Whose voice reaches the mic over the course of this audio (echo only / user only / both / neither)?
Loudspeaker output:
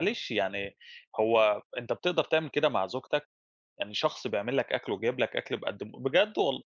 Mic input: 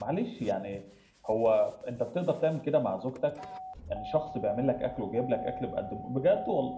echo only